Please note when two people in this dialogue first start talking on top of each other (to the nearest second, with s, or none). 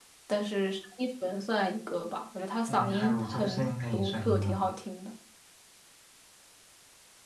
3 s